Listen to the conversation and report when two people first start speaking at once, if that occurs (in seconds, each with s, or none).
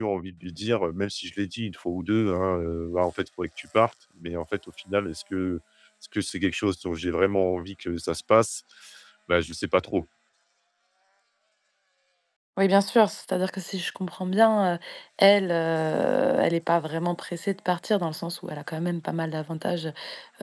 none